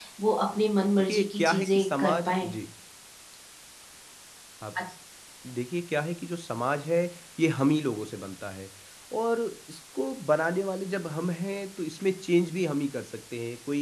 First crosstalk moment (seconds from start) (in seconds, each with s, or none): 1.0 s